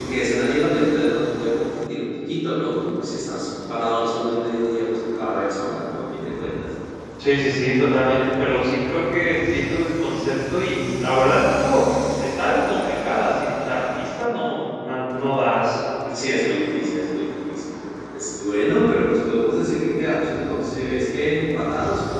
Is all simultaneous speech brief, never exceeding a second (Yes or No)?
Yes